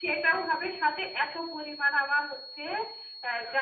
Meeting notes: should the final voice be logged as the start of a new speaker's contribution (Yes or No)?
No